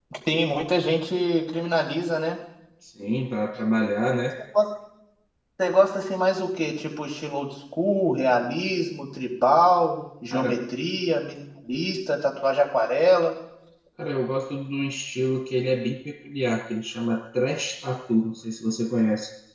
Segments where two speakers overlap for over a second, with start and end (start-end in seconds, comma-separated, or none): none